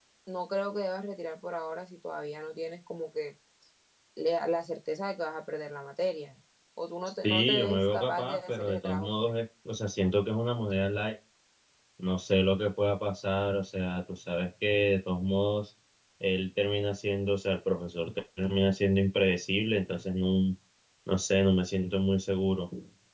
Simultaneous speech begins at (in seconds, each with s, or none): 7.2 s